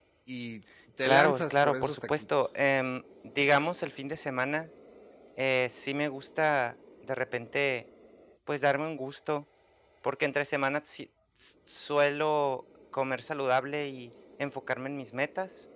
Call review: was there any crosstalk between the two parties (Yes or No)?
Yes